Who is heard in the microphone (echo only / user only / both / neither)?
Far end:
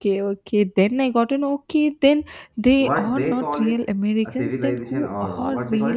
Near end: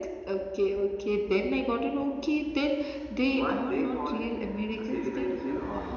echo only